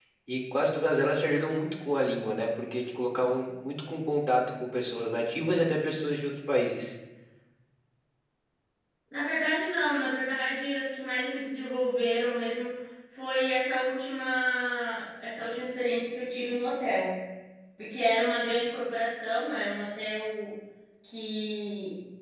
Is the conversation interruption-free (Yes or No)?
Yes